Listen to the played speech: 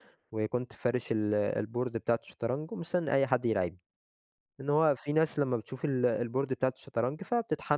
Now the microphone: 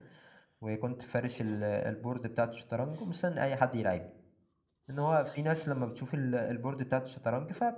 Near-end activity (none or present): none